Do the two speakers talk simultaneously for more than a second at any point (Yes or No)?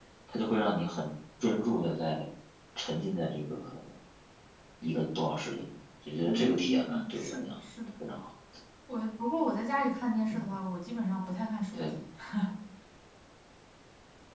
Yes